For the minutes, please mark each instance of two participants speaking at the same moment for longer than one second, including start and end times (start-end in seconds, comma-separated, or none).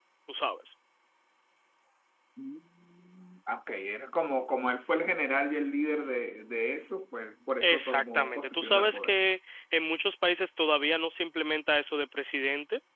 7.6-9.2